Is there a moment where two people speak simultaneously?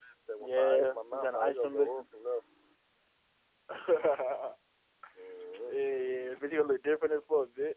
Yes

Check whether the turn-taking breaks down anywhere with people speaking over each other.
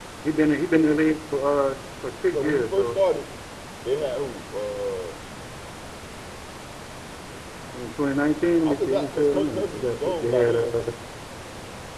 Yes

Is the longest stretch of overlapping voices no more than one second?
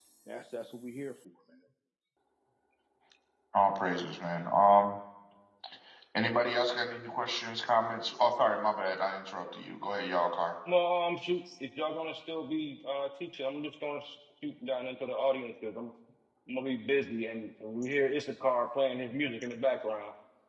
Yes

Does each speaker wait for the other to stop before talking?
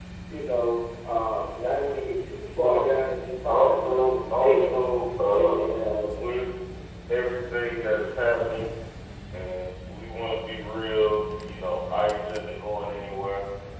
No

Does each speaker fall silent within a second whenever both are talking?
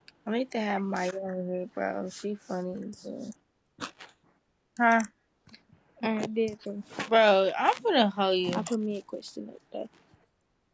Yes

